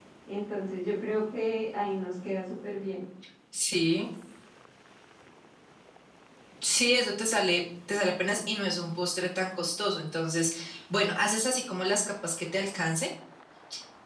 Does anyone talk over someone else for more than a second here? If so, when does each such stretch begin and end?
none

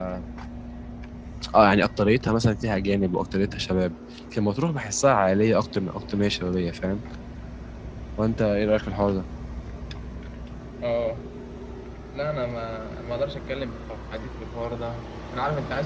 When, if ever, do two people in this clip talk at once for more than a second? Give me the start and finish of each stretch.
none

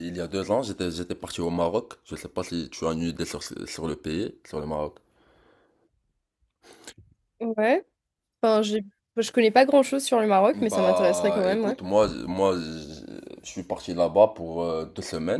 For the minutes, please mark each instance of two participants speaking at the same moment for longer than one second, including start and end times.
10.5-11.8

